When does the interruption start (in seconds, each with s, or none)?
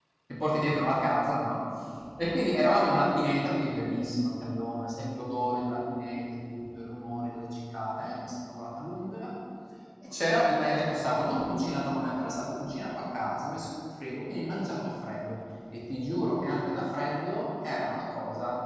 none